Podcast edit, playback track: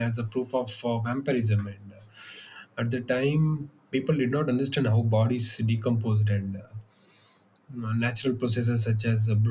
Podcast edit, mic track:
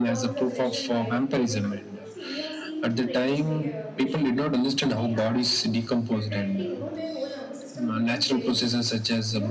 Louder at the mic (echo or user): echo